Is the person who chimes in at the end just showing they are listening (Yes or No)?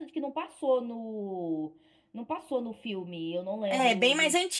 No